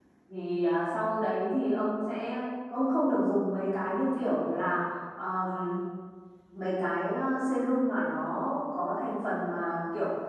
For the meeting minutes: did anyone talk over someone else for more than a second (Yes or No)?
No